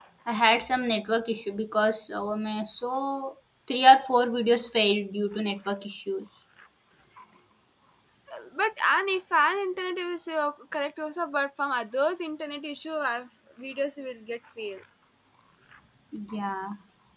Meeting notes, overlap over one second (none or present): none